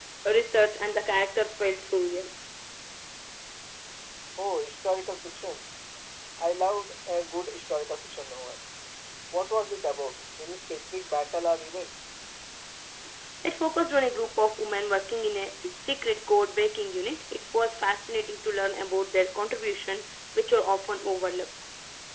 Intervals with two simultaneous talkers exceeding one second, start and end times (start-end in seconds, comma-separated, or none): none